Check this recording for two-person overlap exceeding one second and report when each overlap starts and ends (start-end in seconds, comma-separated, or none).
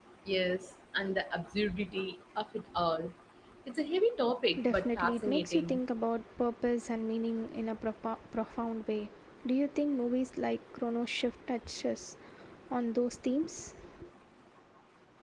4.6-5.8